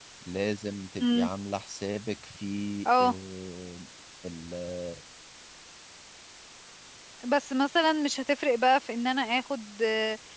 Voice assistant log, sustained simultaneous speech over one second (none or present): none